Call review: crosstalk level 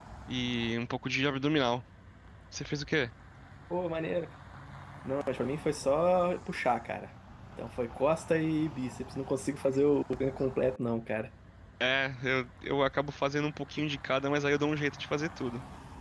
none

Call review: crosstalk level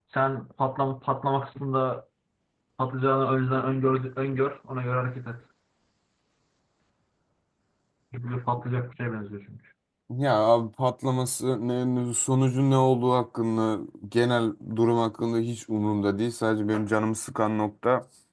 none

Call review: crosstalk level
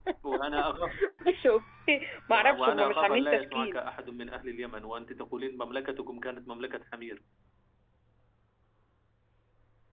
present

